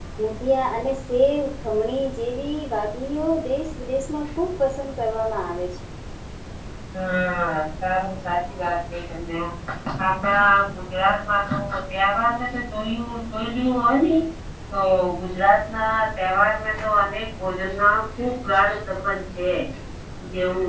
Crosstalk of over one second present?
No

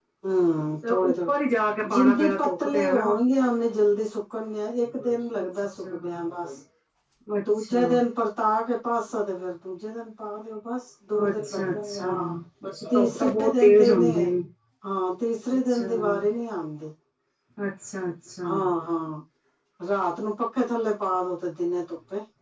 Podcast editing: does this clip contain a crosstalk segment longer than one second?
Yes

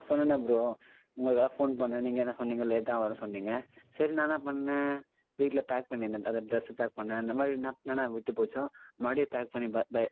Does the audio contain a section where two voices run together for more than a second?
No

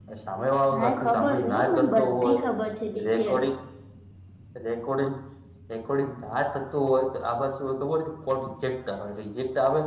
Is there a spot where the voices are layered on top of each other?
Yes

